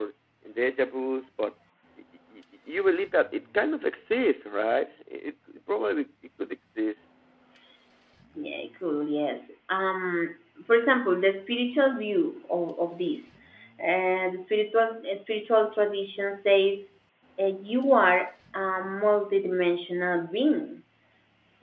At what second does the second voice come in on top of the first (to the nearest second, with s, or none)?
none